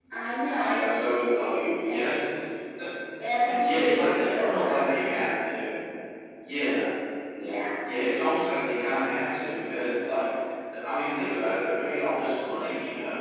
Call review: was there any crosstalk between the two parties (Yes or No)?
Yes